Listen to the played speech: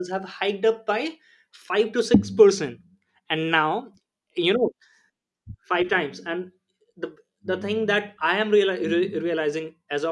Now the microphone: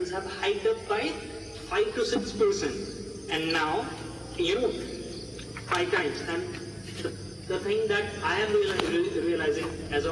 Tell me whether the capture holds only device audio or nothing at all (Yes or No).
Yes